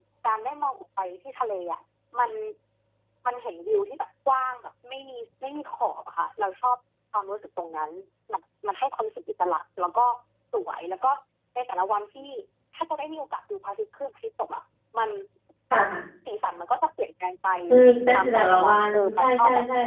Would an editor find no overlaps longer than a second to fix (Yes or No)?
No